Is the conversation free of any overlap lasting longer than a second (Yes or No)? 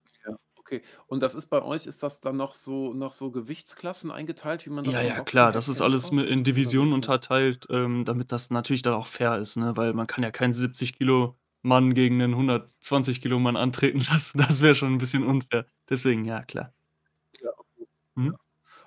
No